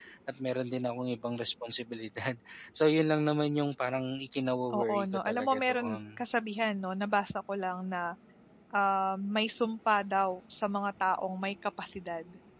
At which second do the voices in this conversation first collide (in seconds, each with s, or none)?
4.7 s